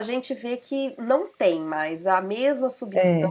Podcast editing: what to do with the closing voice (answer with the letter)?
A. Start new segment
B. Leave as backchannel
B